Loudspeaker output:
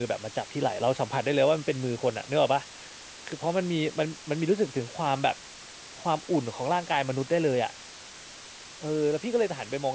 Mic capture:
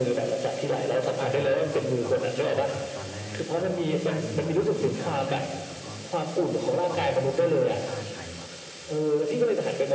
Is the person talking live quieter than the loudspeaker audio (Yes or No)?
Yes